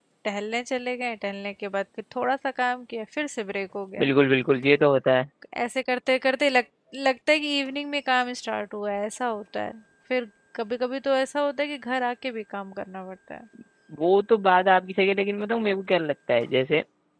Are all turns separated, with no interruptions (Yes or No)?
Yes